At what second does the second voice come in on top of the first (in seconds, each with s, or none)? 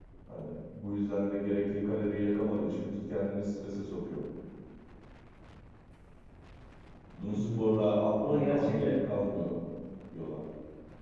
7.3 s